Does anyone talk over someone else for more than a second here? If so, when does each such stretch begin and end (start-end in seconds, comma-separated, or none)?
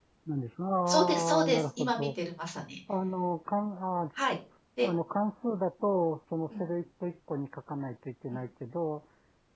0.9-2.1